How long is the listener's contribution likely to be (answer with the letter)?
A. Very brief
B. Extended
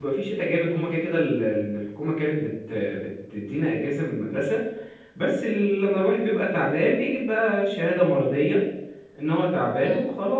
A